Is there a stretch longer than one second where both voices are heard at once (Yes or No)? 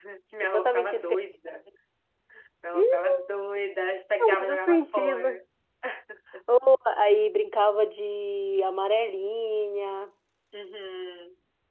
Yes